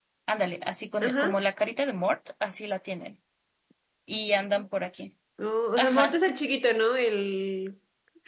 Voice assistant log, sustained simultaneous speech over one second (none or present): none